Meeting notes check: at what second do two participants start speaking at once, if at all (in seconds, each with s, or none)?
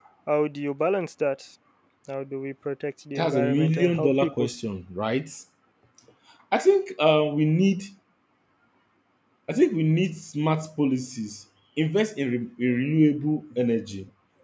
3.2 s